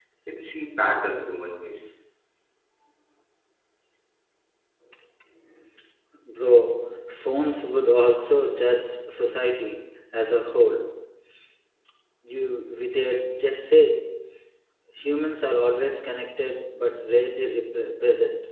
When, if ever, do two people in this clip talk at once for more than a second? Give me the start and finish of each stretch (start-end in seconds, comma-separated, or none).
none